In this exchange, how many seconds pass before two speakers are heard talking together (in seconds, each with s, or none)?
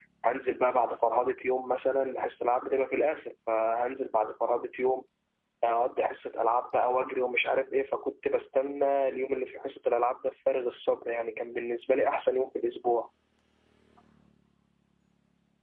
none